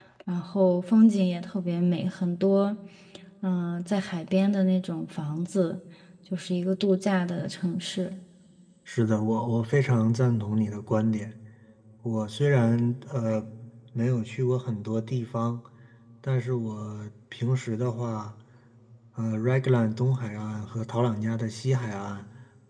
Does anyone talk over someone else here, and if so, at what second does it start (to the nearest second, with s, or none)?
none